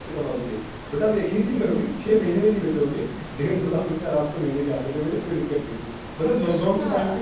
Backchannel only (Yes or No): Yes